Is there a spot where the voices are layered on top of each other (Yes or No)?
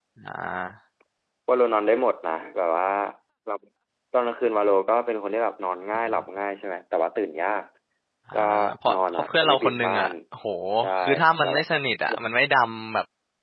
Yes